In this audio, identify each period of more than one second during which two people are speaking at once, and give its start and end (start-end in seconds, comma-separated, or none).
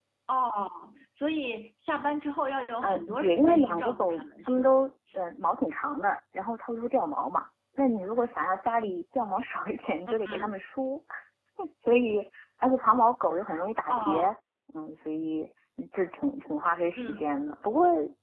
2.8-4.7